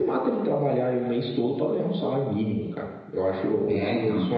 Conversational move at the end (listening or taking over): listening